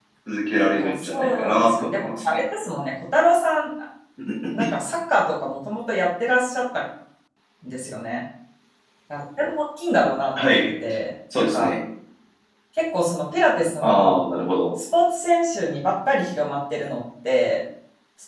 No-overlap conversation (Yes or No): No